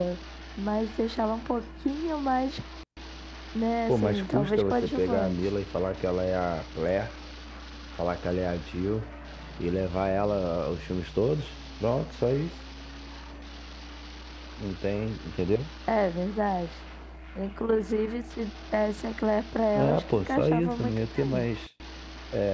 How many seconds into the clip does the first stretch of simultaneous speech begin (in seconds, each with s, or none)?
3.9 s